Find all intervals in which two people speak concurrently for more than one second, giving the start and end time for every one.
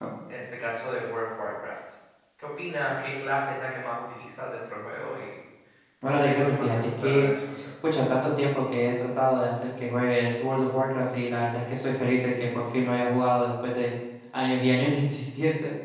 6.1-7.3

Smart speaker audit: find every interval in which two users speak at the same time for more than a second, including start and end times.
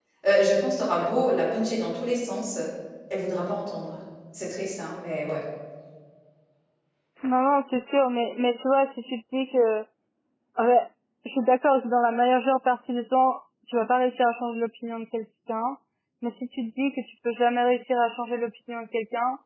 none

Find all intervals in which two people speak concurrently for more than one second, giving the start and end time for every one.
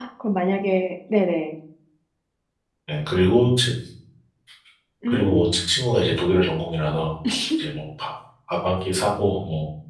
none

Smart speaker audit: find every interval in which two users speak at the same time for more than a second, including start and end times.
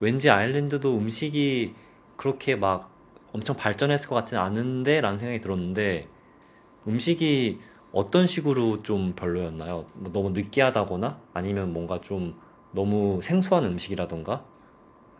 none

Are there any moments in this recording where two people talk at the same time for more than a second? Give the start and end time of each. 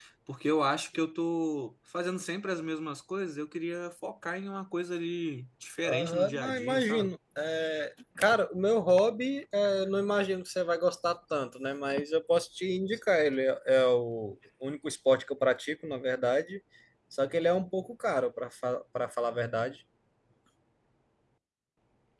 5.8-7.1

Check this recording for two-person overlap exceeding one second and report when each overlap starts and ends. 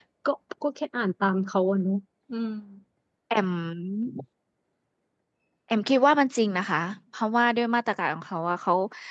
none

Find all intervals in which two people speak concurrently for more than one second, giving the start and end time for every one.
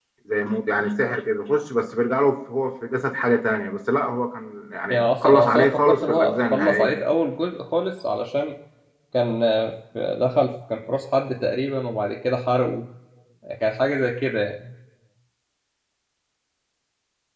4.9-7.0

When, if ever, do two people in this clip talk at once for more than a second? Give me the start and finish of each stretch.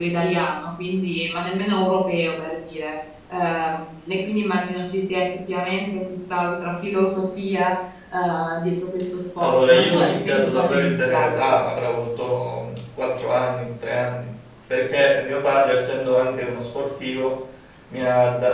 9.4-11.5

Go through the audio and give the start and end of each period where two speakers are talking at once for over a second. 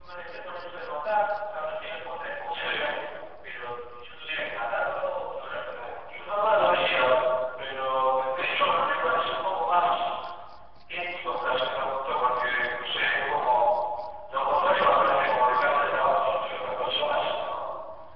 none

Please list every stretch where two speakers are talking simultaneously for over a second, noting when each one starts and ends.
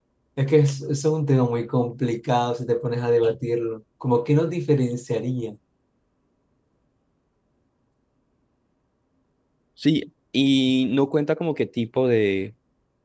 none

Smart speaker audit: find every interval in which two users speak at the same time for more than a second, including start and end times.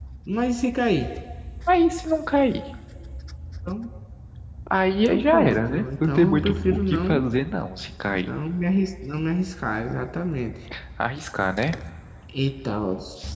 5.1-7.2

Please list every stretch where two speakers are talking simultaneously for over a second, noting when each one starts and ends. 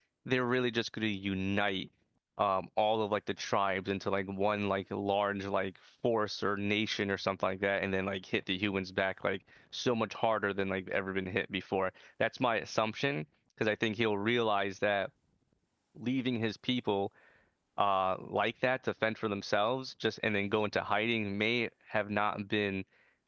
none

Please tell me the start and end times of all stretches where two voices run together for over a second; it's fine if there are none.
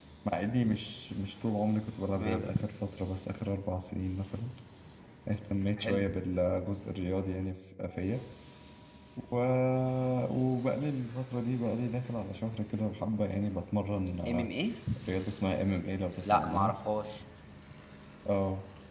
none

